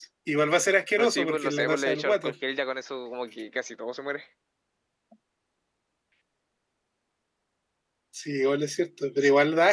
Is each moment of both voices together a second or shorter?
No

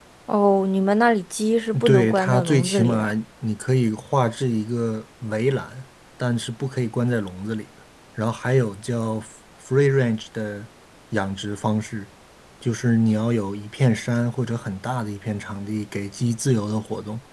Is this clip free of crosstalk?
No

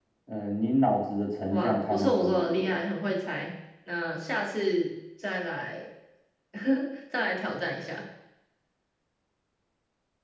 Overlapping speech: Yes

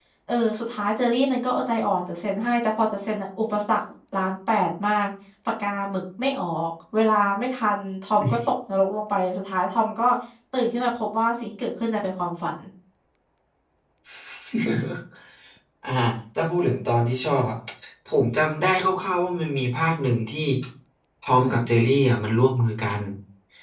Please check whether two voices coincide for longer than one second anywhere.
No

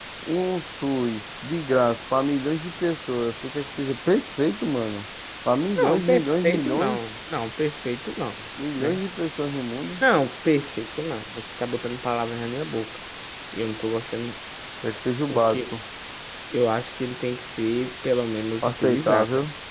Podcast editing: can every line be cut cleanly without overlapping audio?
No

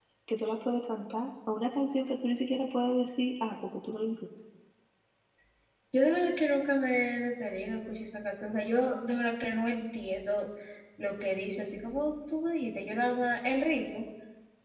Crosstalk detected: No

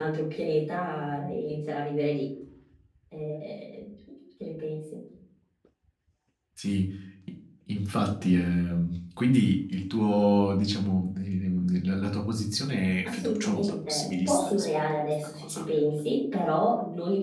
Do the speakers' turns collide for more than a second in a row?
Yes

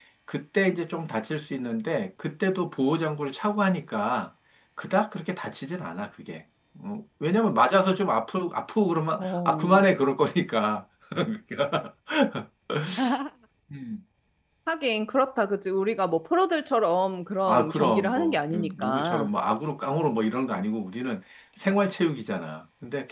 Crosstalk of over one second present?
Yes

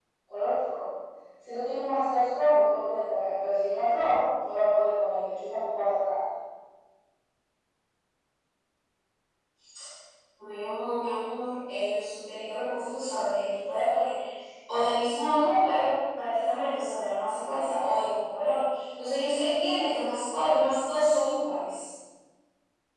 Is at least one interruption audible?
No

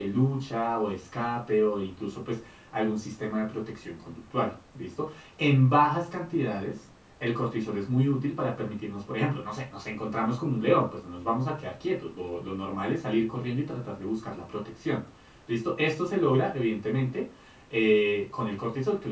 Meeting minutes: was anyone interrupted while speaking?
No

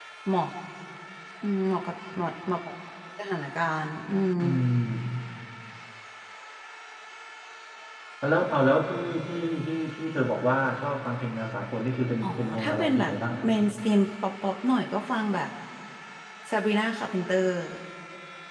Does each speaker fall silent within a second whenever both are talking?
No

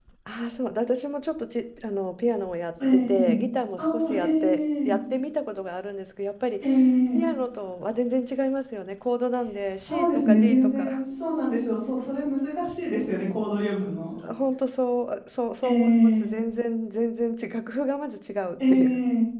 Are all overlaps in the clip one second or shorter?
No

